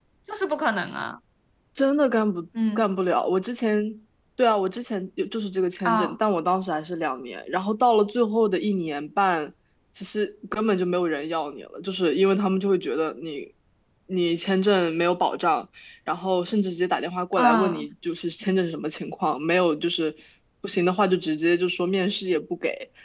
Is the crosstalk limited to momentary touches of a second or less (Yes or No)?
Yes